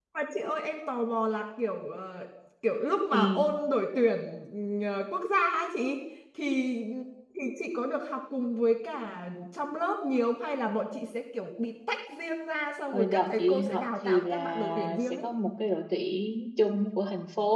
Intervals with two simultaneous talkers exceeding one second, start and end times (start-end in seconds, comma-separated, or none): 12.9-15.2